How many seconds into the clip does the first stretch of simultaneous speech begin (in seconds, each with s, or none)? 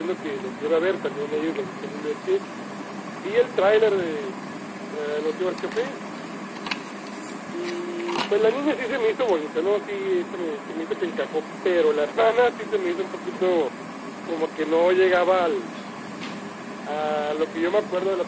none